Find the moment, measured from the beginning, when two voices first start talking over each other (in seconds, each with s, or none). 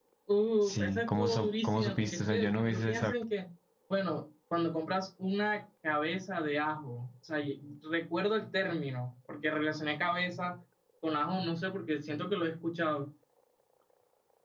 0.6 s